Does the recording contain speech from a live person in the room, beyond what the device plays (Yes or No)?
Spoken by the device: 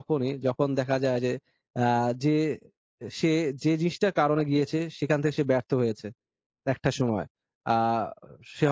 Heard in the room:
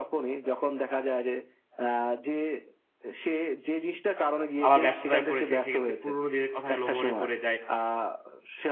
Yes